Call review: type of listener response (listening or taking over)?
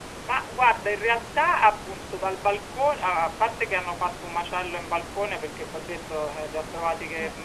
listening